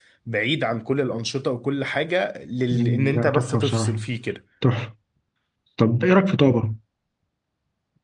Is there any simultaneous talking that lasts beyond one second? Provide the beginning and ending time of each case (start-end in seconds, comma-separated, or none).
2.7-4.0